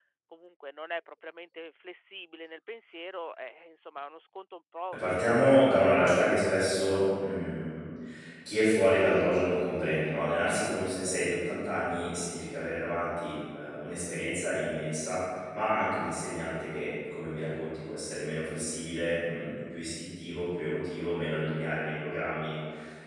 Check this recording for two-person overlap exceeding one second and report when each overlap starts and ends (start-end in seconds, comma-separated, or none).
5.0-6.3